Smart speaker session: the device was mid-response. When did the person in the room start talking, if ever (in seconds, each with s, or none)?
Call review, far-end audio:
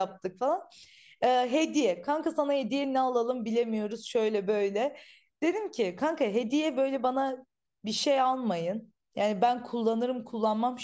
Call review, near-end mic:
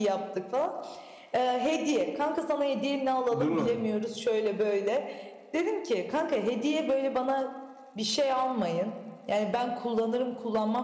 3.3 s